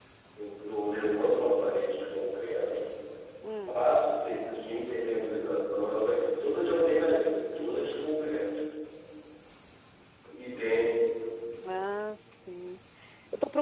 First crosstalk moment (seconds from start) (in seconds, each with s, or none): none